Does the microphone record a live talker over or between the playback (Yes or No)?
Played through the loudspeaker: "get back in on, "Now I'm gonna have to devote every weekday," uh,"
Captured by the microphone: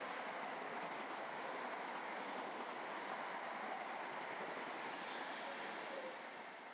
No